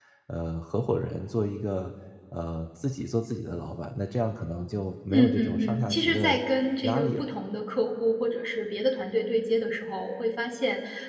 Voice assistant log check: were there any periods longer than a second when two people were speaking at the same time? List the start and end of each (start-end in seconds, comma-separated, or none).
5.1-6.4